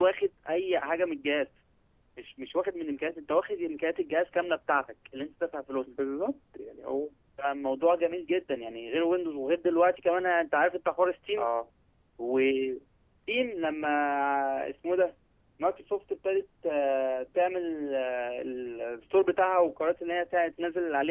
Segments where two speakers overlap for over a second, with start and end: none

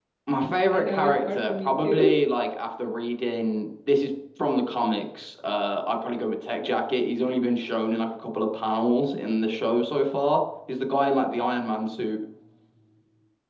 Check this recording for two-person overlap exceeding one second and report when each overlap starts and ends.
0.7-2.2

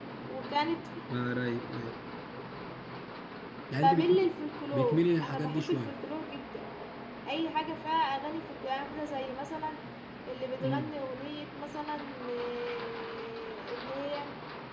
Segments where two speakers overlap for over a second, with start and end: 4.7-5.9

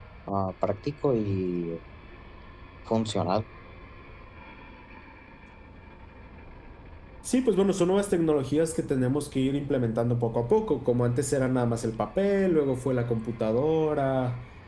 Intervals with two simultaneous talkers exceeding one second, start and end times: none

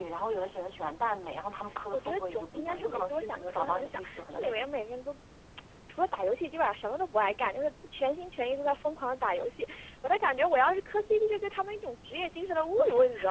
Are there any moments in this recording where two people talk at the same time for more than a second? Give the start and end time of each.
1.9-4.7

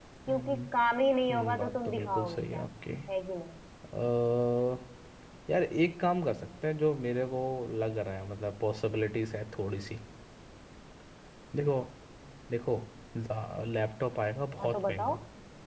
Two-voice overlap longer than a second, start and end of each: 1.3-2.6

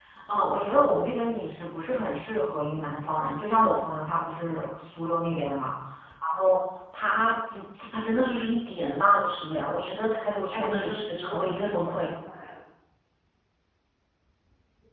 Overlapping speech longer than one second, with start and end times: 10.5-12.1

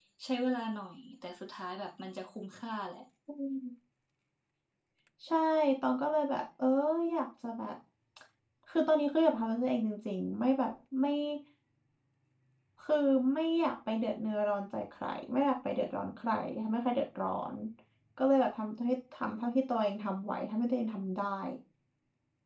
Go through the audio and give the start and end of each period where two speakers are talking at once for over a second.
none

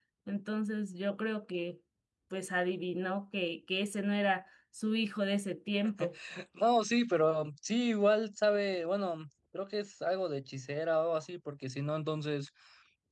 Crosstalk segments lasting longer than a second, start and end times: none

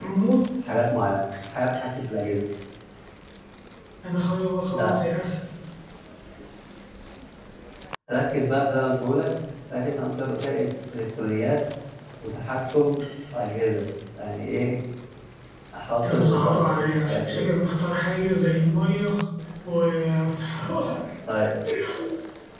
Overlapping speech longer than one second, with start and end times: 15.9-17.4

